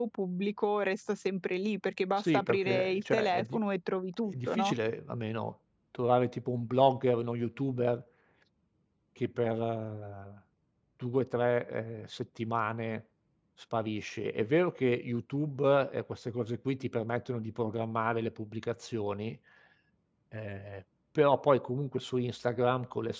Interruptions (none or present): present